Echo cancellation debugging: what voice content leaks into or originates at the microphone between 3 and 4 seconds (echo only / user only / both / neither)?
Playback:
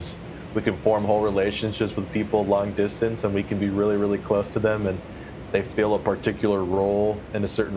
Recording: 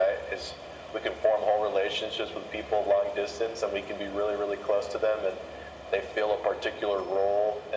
echo only